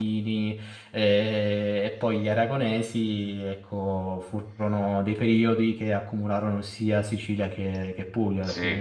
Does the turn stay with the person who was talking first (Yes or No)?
No